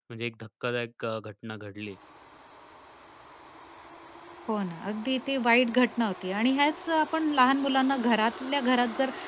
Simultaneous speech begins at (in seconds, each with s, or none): none